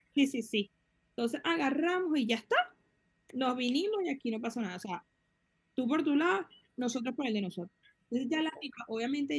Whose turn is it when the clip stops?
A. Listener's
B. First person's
B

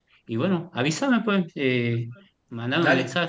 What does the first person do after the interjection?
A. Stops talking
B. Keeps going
B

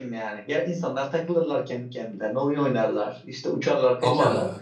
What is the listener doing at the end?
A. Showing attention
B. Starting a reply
A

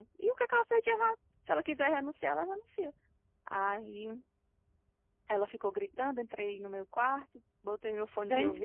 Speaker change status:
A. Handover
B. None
A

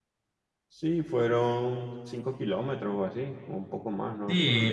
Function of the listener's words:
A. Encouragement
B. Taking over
B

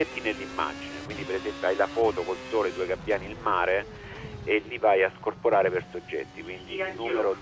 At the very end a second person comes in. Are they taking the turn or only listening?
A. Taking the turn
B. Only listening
A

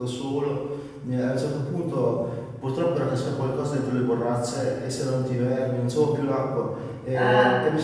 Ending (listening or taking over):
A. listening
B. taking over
A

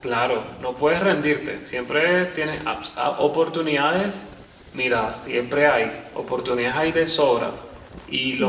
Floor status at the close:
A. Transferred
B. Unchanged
B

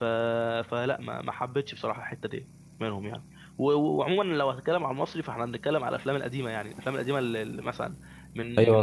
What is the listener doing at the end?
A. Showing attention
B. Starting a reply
B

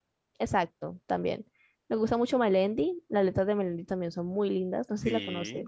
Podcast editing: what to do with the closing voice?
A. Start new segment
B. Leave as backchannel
A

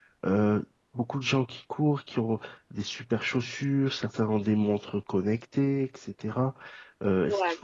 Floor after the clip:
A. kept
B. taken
A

